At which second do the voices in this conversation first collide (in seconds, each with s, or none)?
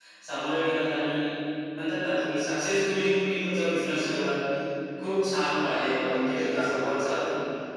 5.5 s